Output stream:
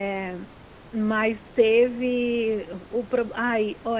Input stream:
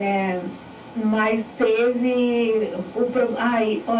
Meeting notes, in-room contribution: none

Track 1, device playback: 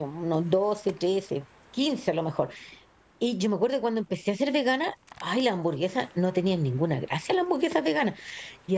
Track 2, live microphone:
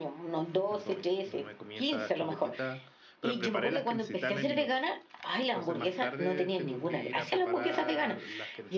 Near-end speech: present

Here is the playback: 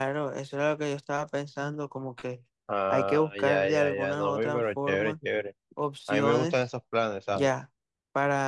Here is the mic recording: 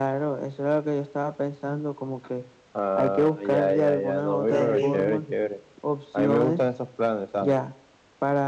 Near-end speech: present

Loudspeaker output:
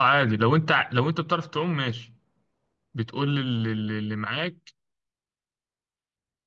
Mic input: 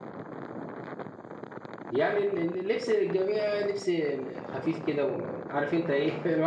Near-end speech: present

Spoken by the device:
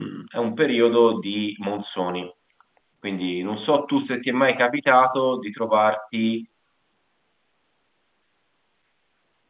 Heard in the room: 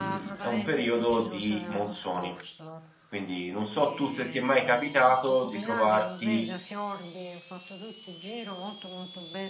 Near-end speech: present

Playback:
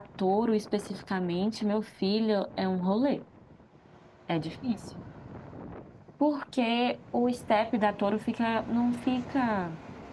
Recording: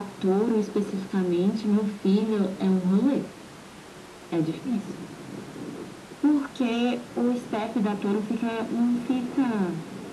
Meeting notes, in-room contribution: none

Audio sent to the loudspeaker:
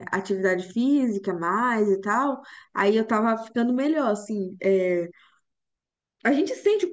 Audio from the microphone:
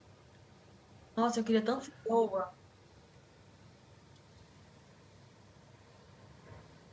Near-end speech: present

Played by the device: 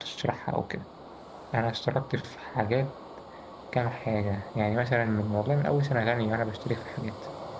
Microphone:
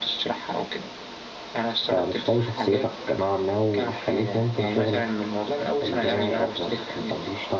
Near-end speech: present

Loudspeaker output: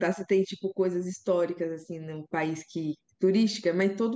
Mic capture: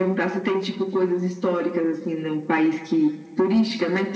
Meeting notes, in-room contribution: none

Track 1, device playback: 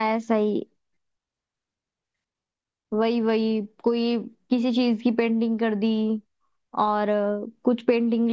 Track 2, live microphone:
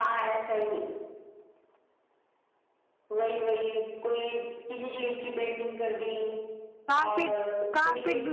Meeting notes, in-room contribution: present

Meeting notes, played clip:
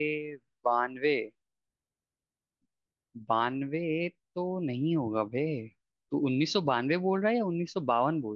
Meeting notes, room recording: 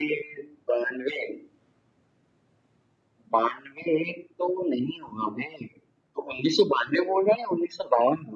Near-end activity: none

